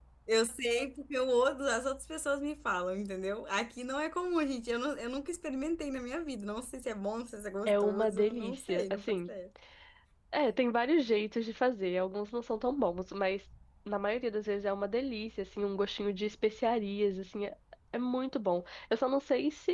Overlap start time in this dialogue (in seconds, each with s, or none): 7.7 s